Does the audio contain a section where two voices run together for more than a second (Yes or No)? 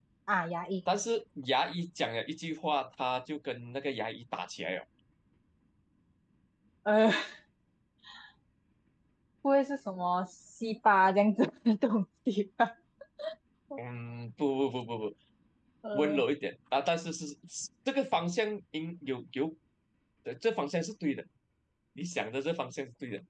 No